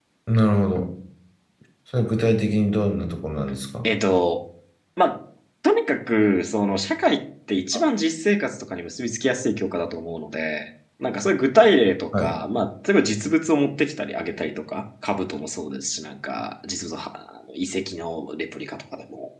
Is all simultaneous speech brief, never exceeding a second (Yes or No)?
Yes